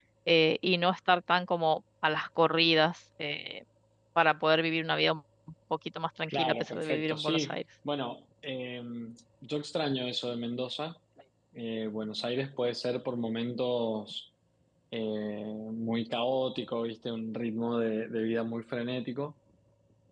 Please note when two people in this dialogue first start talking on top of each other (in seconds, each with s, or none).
6.3 s